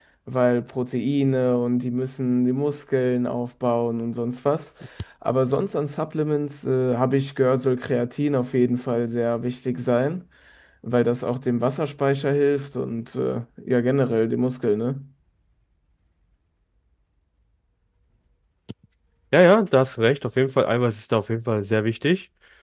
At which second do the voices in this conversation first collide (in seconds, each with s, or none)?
none